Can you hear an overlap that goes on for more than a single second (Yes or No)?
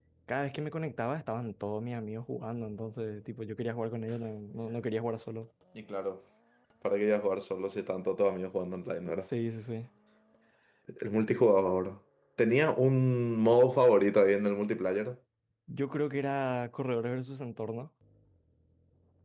No